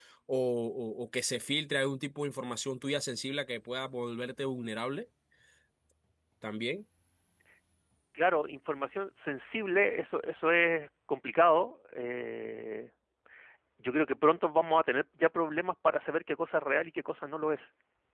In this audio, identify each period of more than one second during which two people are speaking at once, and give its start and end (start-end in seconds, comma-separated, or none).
none